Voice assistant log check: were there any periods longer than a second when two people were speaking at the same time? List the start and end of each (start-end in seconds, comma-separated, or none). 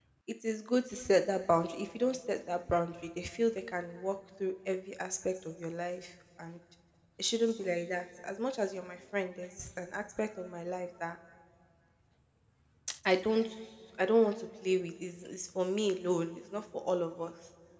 none